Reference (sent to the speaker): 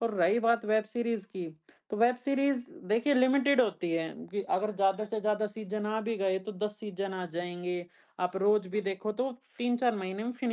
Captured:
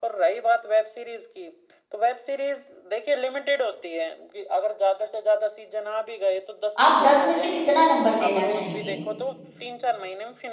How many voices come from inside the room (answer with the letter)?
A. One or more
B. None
A